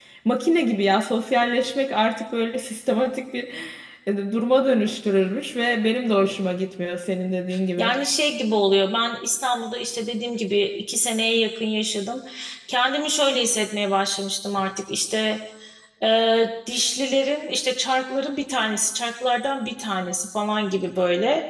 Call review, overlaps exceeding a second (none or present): none